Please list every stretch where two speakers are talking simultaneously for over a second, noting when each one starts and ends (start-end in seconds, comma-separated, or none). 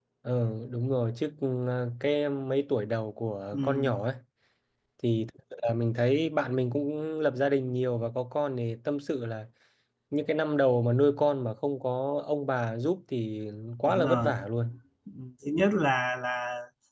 none